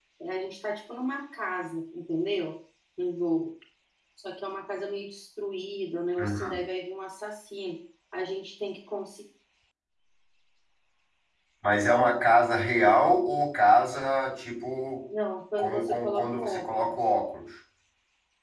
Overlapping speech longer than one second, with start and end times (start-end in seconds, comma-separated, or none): 15.6-16.9